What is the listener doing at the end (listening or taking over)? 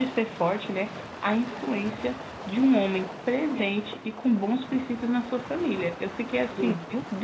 listening